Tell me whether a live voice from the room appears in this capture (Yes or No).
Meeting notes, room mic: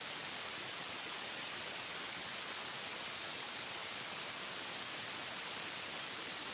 No